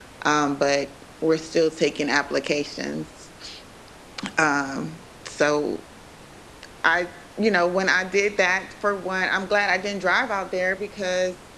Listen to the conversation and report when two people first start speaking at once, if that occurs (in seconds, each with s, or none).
none